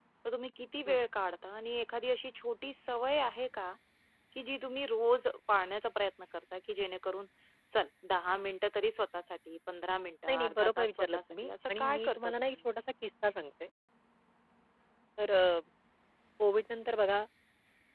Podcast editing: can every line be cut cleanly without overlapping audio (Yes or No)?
No